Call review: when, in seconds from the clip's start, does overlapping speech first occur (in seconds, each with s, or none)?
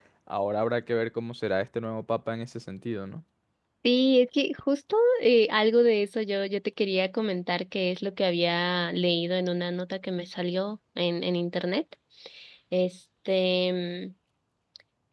none